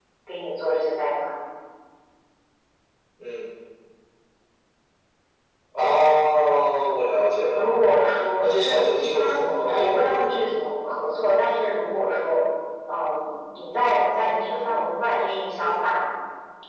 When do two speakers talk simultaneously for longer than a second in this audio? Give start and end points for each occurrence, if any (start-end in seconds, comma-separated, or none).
8.4-10.4